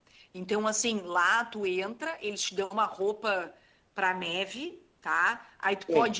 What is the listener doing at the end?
listening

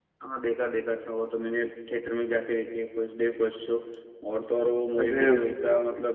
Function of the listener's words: listening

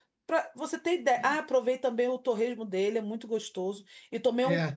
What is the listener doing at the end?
listening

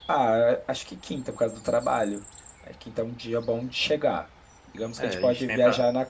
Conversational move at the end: taking over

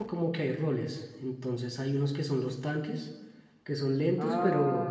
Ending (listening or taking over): listening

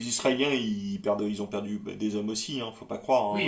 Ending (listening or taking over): taking over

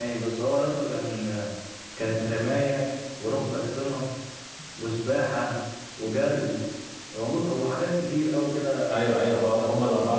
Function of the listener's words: taking over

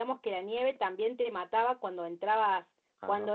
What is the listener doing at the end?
listening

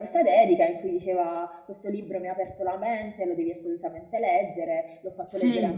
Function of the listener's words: listening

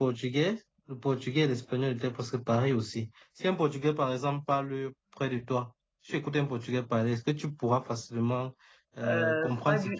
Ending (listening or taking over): taking over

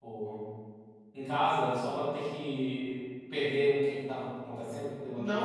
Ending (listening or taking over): taking over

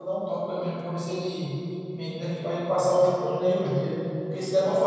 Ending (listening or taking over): listening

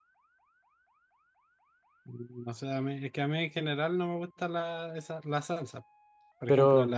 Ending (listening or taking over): listening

